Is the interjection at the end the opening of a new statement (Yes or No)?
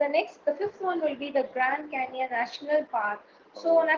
No